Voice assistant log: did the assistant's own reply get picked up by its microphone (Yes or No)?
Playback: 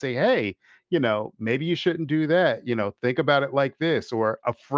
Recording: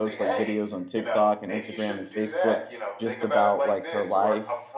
Yes